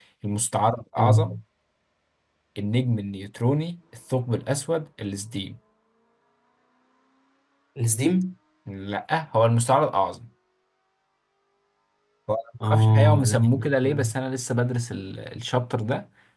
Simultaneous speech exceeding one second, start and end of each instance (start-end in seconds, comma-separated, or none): 12.6-14.1